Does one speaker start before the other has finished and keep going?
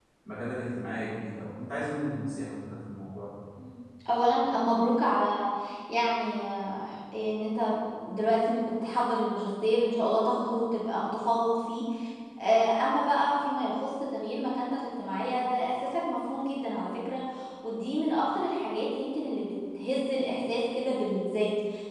No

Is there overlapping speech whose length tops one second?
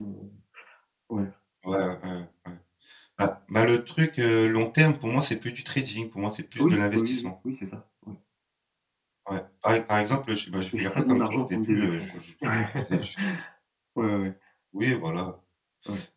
Yes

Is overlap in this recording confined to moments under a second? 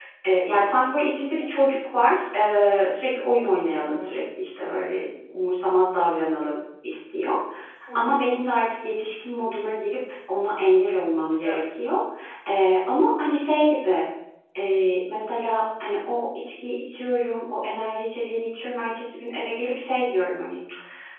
Yes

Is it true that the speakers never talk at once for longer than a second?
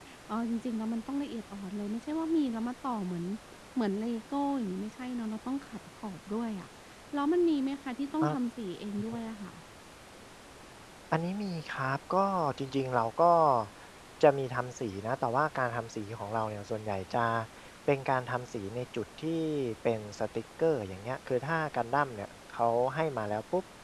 Yes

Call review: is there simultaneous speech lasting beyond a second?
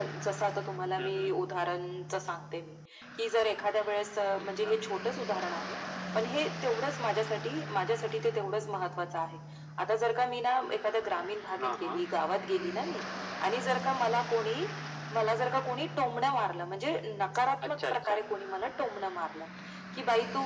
No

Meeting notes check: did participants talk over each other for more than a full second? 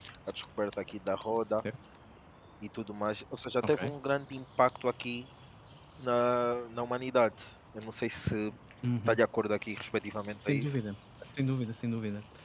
No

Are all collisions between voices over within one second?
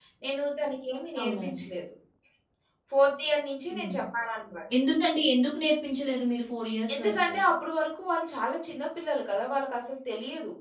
Yes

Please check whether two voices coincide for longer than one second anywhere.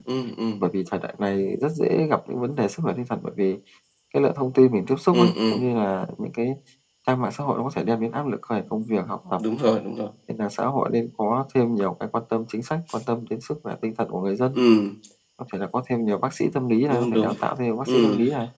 No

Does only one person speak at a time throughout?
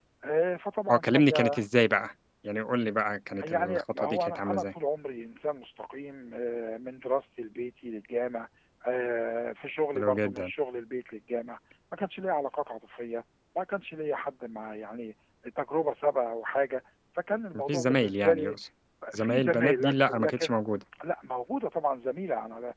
No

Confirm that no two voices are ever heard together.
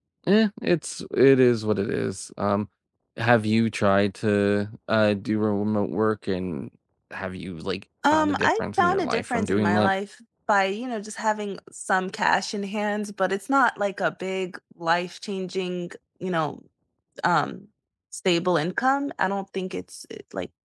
No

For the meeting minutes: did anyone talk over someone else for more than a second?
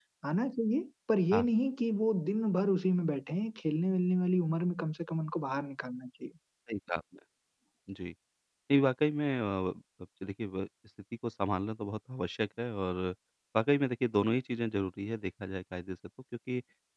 No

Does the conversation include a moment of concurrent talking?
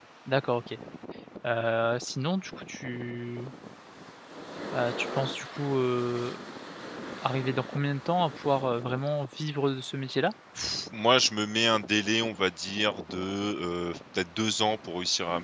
No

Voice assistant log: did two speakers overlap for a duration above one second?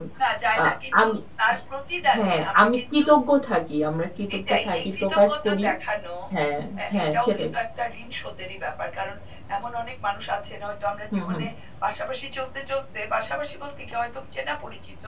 Yes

